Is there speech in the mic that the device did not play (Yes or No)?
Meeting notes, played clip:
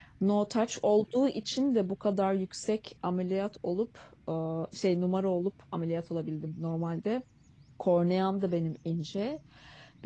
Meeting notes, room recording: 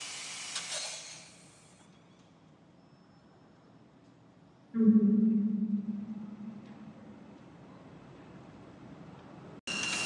Yes